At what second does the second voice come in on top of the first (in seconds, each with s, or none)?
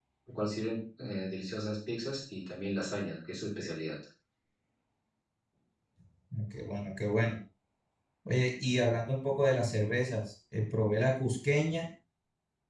none